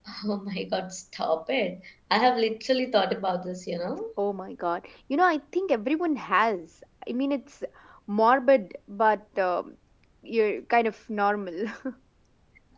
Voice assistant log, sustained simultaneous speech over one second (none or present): none